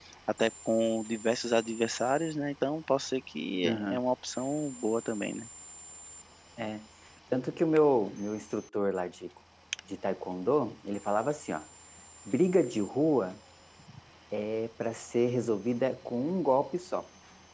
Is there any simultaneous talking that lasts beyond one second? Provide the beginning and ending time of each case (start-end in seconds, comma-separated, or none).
none